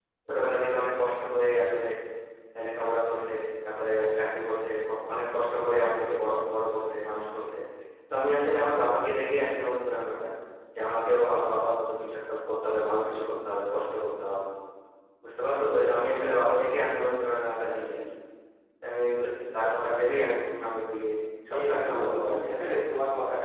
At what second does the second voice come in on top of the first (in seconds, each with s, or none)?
21.5 s